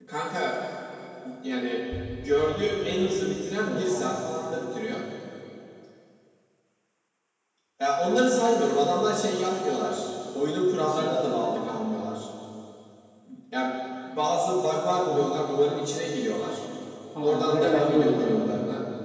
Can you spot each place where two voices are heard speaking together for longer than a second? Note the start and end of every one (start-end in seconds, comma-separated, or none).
17.2-18.5